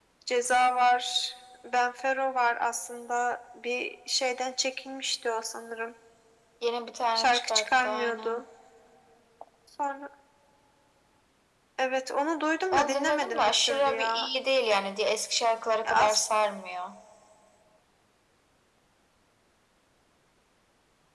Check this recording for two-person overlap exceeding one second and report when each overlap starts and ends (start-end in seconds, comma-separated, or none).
7.2-8.4, 12.7-14.3